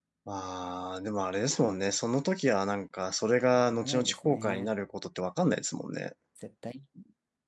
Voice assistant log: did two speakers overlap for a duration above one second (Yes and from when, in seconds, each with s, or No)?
Yes, from 3.5 s